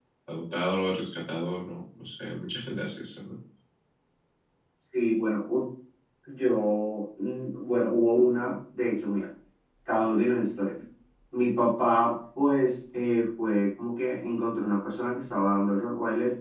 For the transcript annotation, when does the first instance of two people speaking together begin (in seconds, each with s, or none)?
none